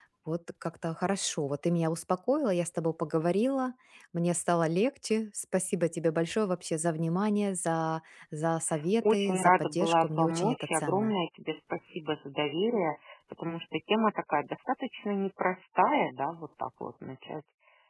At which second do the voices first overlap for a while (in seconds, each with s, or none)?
9.0 s